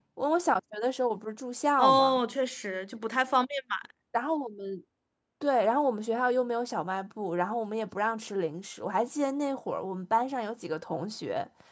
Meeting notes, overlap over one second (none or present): none